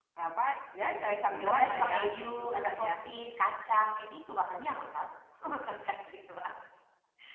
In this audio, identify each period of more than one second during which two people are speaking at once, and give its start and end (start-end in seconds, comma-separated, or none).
1.2-2.9